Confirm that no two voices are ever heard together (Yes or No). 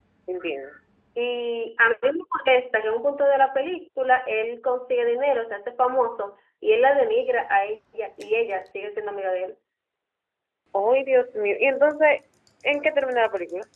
Yes